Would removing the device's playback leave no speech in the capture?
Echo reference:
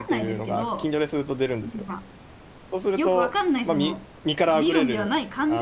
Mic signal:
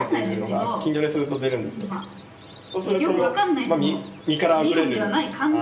No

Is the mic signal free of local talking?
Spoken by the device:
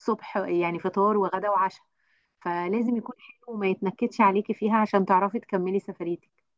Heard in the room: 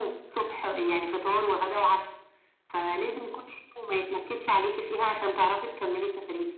Yes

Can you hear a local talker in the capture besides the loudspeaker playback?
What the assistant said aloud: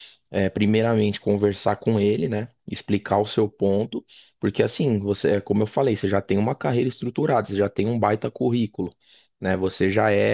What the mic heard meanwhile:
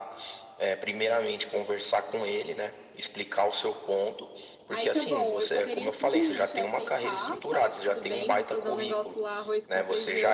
Yes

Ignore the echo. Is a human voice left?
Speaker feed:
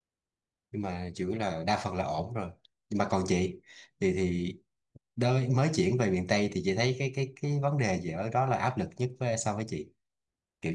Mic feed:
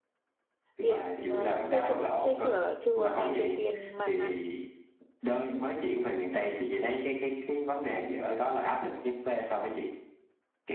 Yes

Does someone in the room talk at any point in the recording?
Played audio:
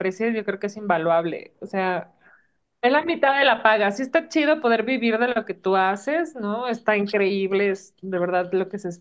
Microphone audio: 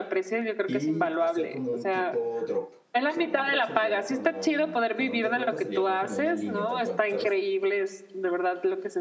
Yes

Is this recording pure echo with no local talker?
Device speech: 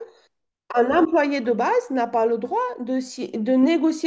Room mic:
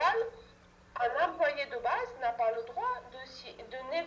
Yes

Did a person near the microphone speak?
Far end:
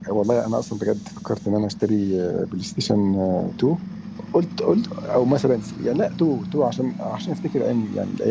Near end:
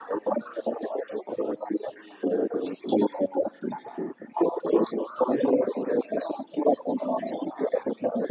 No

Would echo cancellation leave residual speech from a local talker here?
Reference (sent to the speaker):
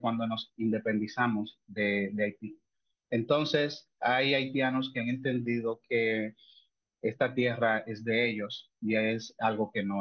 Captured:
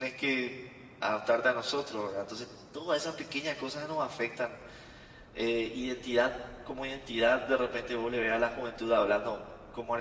Yes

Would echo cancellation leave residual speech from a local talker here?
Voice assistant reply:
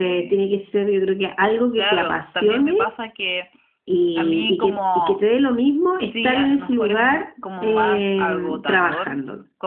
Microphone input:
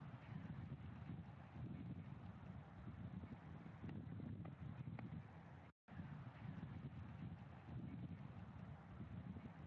No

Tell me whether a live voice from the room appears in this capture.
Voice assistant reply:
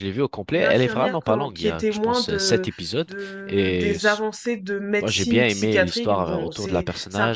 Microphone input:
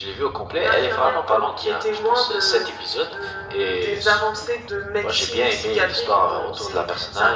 No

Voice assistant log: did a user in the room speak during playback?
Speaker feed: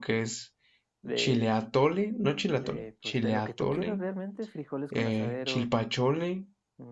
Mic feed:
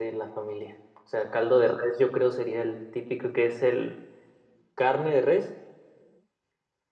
Yes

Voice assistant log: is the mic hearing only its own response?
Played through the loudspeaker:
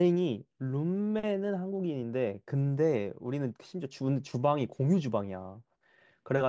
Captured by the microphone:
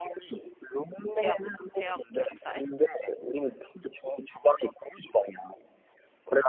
No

